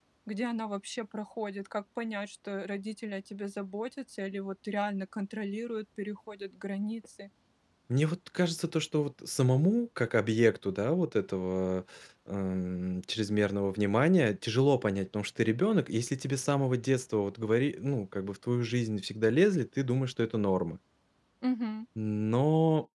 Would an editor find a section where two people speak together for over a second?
No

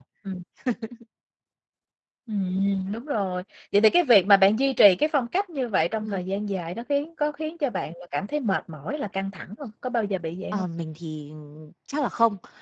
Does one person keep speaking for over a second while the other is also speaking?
No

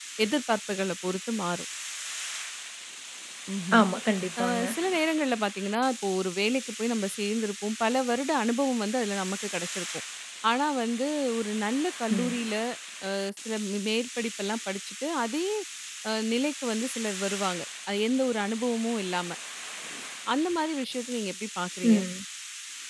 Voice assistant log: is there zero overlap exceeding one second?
Yes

